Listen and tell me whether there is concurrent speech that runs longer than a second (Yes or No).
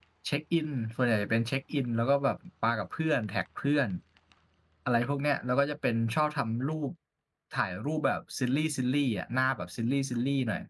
No